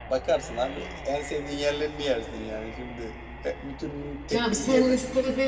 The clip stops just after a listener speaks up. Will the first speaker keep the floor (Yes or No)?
No